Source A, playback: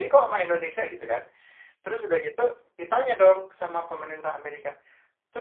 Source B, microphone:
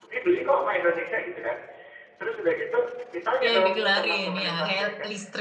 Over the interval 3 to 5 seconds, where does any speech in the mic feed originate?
both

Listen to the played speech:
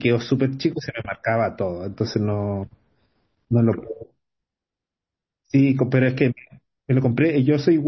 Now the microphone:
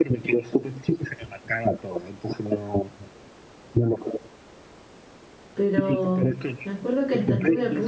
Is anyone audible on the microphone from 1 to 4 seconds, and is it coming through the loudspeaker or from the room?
echo only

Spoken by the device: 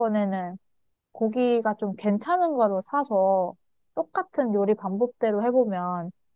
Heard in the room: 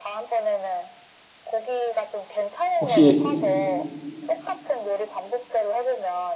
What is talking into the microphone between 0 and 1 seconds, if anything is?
echo only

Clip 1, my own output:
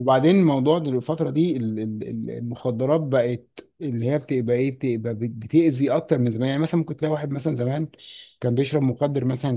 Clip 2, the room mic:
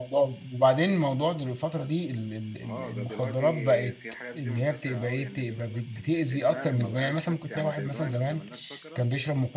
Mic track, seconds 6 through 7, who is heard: both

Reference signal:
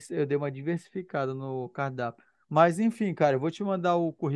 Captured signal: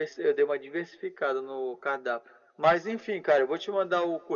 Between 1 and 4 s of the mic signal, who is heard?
echo only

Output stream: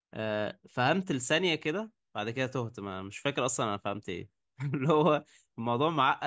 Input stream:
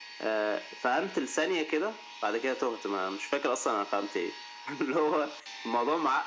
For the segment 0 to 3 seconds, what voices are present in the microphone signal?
echo only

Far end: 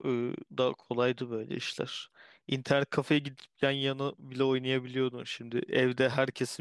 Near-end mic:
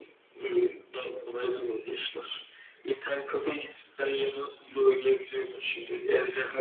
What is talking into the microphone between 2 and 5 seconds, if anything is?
echo only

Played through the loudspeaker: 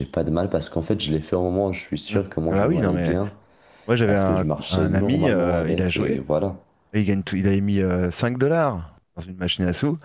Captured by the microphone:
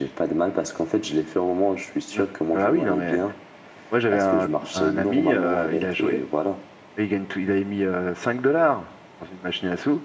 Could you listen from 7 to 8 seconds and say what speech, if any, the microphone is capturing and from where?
echo only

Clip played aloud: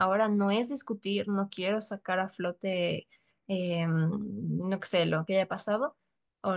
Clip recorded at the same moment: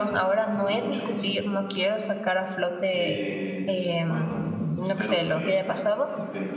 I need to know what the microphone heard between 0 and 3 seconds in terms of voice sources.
both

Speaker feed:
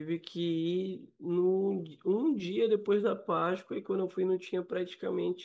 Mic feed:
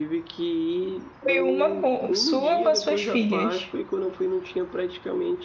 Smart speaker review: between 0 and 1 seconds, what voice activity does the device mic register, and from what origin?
echo only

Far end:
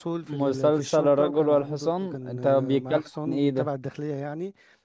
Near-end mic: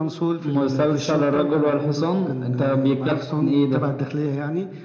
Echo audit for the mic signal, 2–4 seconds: echo only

